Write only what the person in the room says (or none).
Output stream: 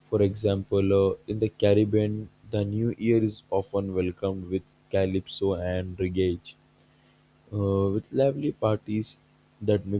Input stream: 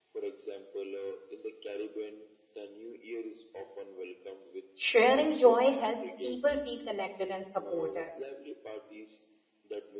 sharing joy helps people feel connected and supported.